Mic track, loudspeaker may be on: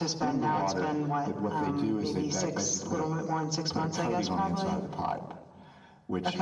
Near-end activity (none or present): none